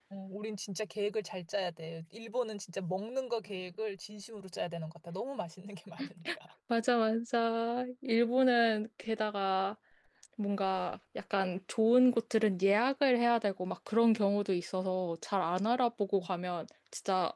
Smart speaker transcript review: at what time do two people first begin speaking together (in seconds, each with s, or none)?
none